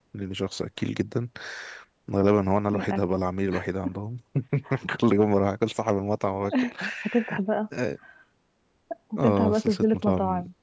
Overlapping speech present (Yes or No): Yes